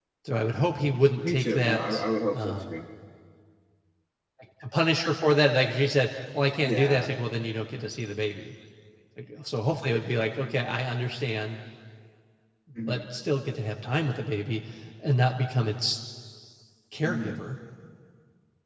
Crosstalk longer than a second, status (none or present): present